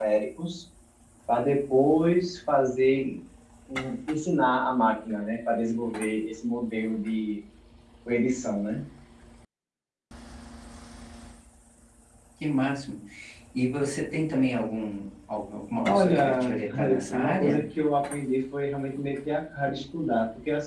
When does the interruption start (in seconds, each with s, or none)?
15.8 s